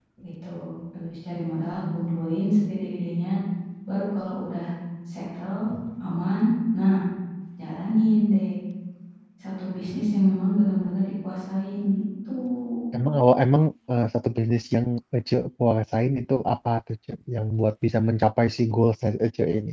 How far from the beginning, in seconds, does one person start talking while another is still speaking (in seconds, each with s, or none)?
none